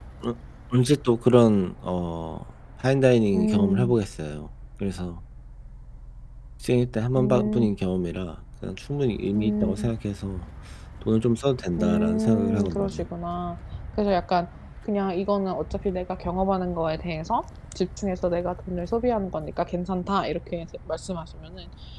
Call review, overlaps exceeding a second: present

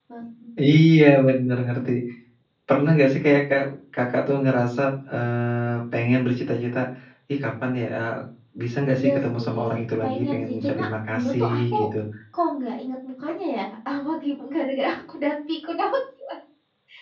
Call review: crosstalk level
present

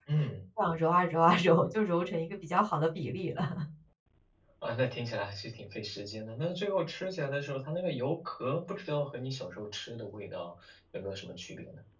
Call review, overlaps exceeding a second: none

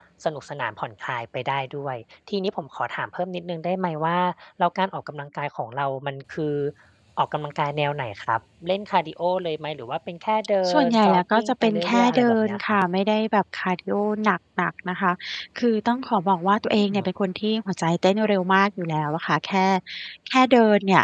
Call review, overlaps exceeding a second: present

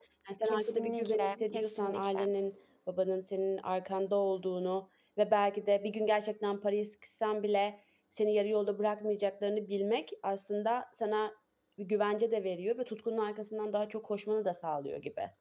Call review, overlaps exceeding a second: present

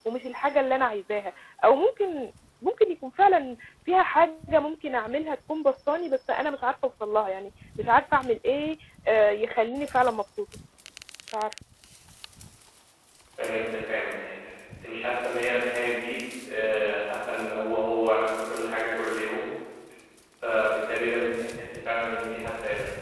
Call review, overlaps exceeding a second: none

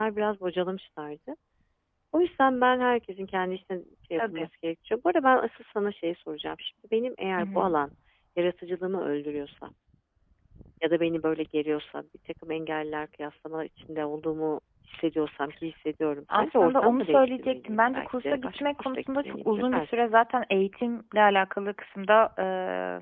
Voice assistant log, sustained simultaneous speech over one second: present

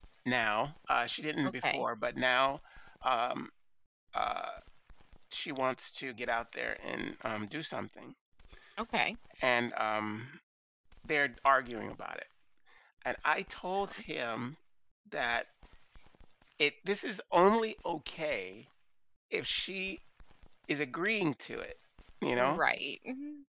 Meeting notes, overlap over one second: none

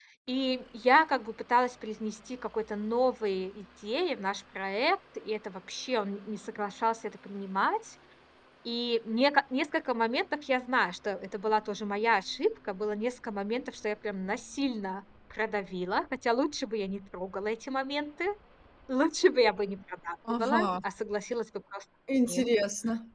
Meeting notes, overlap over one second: none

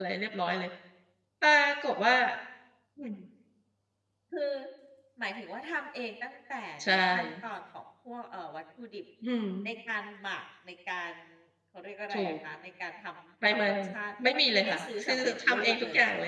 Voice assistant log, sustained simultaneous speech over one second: present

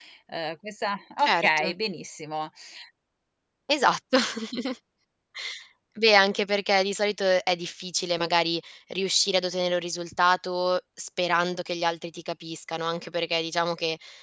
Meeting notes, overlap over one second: none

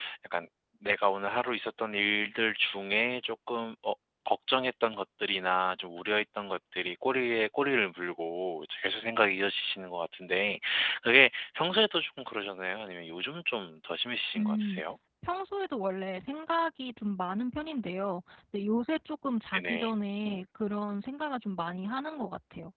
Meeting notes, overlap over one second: none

